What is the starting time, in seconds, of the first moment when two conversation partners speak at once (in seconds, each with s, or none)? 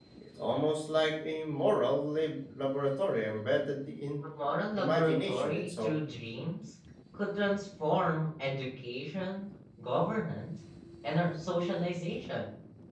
4.8 s